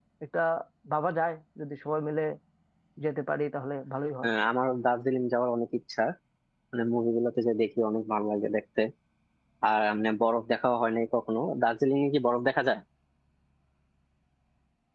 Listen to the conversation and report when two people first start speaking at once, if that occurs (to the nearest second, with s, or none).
none